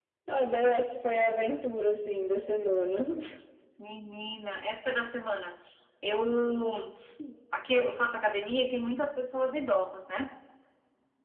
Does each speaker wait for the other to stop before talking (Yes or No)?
Yes